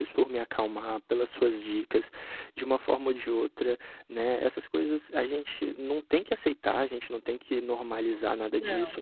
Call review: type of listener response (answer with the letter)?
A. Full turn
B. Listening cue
B